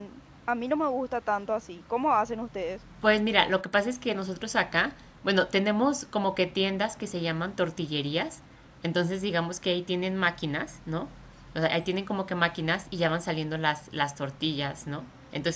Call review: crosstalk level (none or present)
none